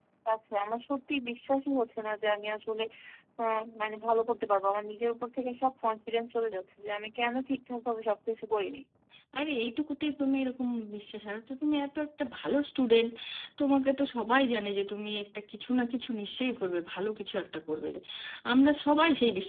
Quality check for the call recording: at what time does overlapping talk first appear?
none

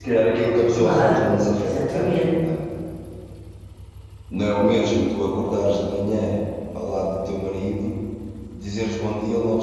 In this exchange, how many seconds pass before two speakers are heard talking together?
0.7 s

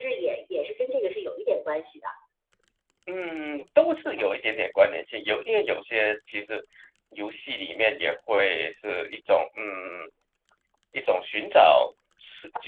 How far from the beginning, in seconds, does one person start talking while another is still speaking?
none

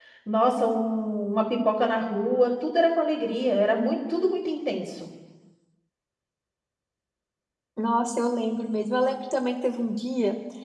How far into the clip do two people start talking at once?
none

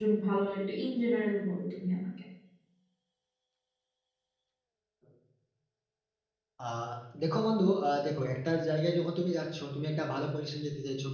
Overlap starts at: none

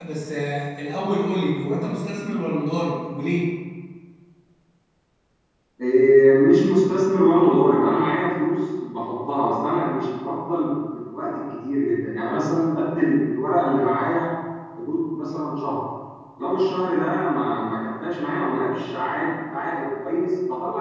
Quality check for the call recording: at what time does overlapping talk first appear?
none

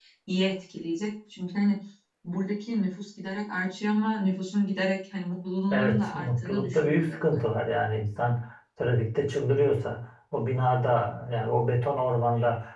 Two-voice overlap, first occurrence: 5.7 s

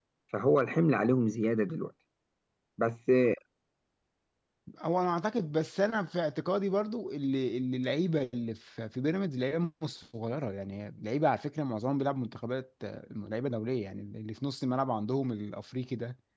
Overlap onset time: none

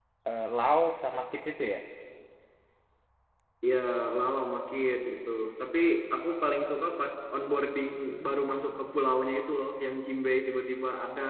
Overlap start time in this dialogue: none

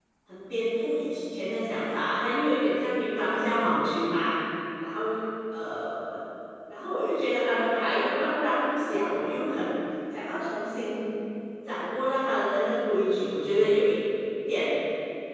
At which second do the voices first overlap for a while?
none

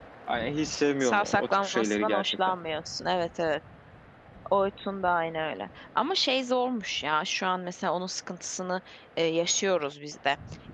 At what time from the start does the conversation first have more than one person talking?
1.0 s

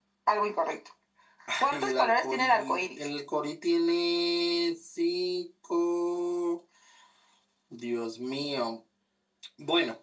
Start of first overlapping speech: 1.7 s

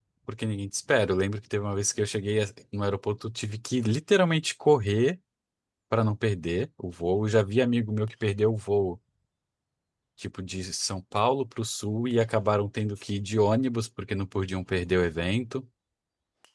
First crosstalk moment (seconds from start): none

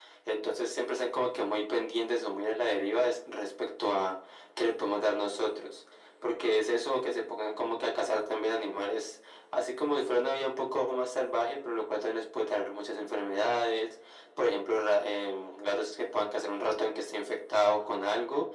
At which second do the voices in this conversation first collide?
none

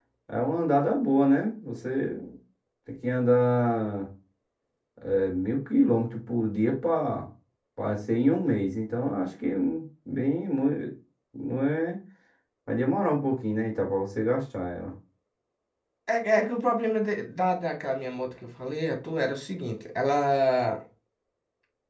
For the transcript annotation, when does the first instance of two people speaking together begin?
none

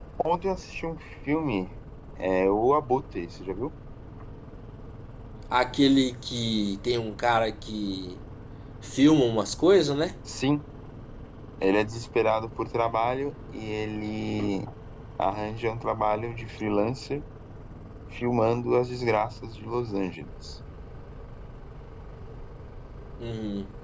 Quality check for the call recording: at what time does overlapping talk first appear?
none

